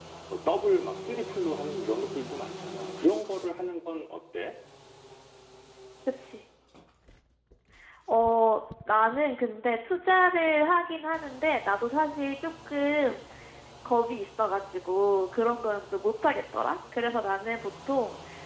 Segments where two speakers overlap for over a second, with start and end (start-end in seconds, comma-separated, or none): none